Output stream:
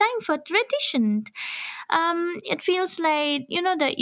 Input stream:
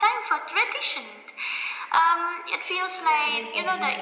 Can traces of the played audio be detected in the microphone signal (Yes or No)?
Yes